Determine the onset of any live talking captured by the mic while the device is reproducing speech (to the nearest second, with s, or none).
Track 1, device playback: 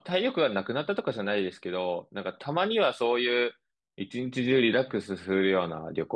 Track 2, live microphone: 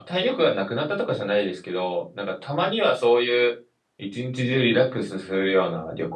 none